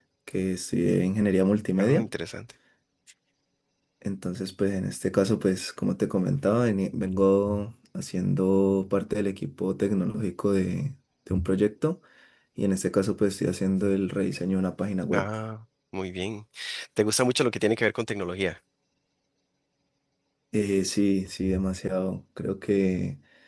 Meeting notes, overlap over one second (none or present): none